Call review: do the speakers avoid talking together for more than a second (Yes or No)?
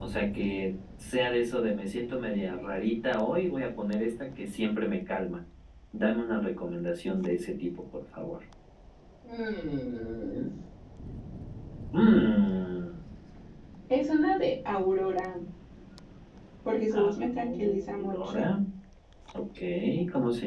No